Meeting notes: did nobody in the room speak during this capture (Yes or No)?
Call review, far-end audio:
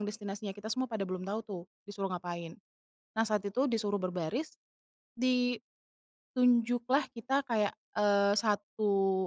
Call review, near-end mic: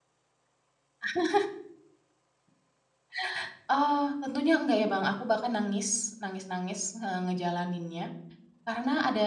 No